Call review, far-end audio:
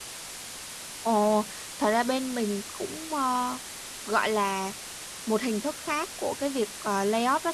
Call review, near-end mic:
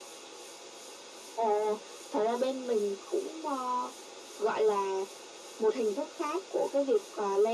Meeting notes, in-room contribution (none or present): none